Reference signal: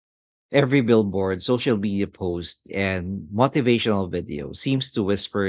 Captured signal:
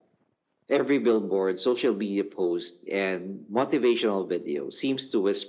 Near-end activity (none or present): none